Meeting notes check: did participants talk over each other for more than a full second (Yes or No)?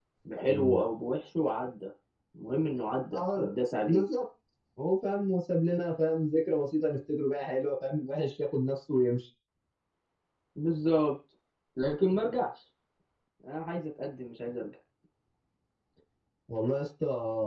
No